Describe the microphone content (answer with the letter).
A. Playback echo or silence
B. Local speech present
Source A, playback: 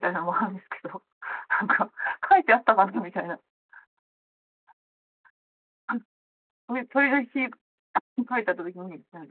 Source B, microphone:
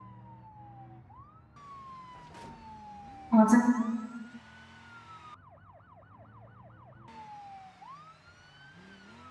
B